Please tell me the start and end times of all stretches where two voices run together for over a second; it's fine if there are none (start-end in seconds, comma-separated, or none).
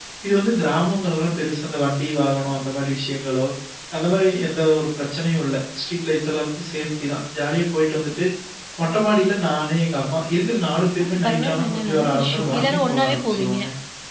11.0-13.6